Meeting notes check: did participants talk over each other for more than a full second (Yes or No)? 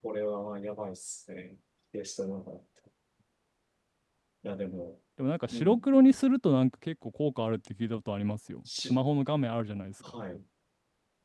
No